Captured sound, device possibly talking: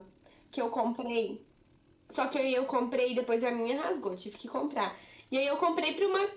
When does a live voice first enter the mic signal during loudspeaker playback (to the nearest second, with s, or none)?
none